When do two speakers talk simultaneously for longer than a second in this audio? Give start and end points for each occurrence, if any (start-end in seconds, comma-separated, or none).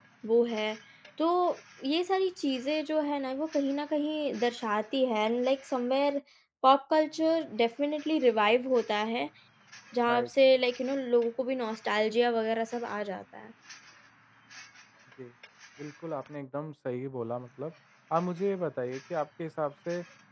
none